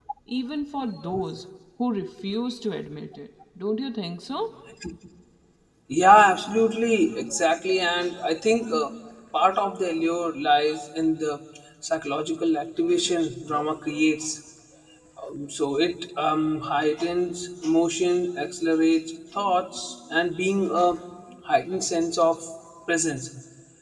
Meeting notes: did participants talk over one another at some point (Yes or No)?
No